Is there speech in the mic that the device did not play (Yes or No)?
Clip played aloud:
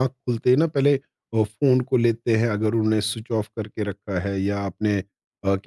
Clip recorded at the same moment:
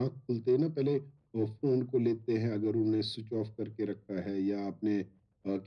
No